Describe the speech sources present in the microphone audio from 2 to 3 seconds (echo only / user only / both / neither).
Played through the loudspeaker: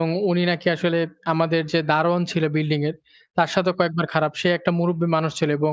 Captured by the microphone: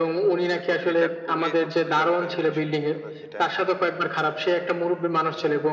both